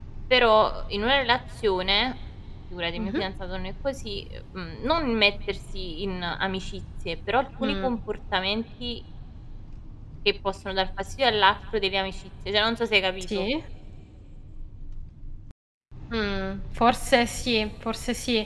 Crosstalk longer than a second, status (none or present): none